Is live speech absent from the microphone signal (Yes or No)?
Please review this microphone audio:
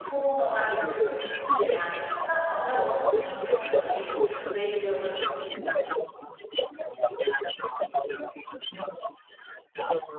No